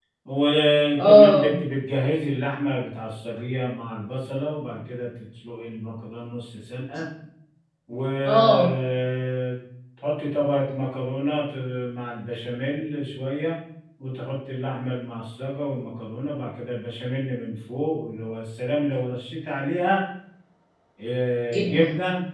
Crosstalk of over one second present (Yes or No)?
No